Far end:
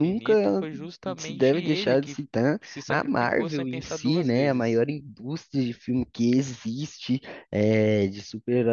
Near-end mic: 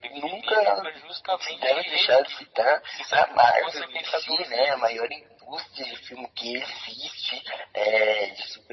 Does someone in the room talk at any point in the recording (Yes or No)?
No